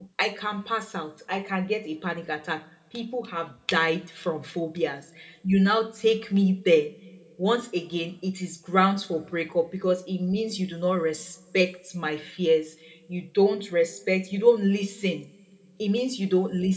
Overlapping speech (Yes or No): No